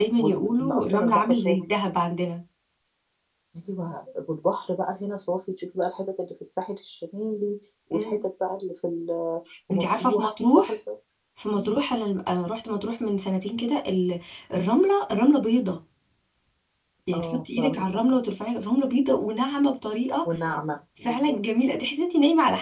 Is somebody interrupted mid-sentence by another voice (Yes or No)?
Yes